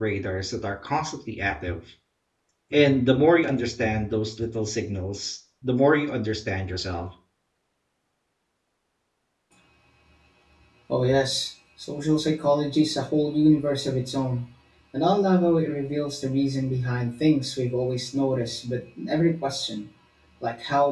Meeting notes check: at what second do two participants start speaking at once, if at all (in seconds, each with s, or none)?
none